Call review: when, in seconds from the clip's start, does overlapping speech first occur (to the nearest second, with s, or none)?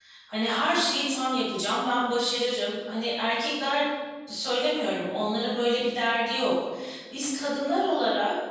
none